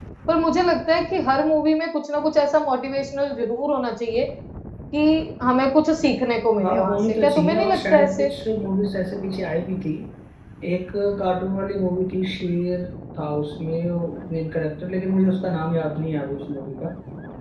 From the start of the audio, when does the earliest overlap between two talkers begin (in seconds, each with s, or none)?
6.5 s